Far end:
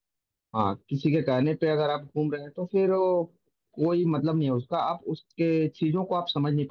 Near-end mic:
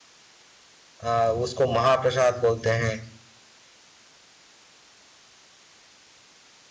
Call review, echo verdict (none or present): none